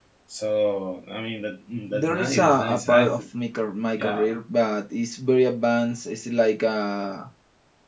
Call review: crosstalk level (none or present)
present